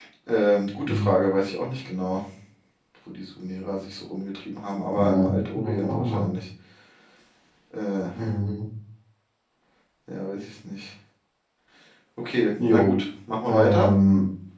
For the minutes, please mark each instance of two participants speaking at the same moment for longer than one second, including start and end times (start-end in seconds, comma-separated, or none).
4.9-6.3